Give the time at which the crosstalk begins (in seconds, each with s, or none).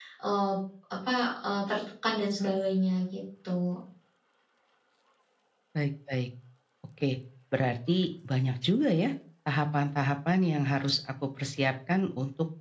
none